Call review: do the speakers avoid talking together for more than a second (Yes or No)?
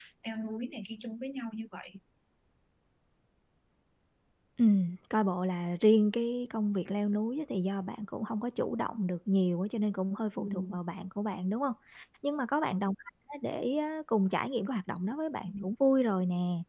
Yes